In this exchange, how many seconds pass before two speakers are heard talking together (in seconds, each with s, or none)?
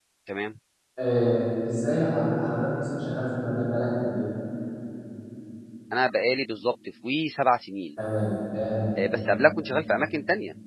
none